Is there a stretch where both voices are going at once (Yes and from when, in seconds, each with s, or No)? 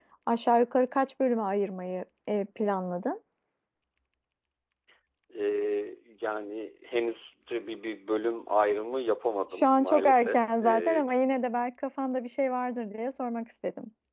Yes, from 9.6 s